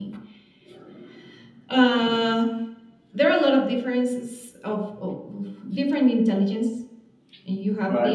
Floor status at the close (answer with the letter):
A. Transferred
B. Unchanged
B